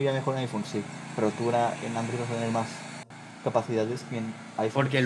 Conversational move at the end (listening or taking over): taking over